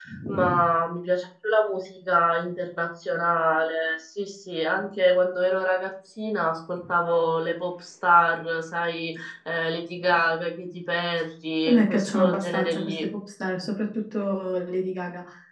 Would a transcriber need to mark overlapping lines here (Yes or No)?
Yes